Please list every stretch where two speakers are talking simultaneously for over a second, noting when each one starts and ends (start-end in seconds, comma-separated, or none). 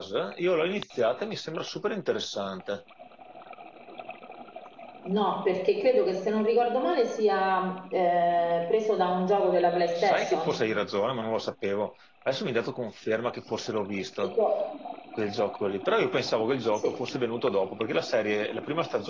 none